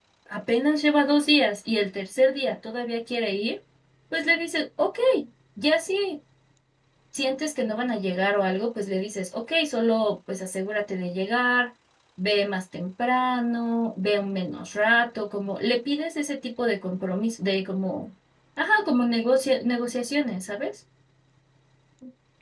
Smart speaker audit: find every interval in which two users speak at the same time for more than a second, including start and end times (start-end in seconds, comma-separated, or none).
none